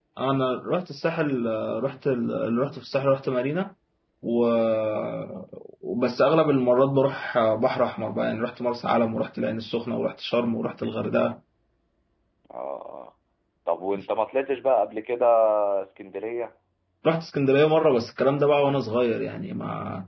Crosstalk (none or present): none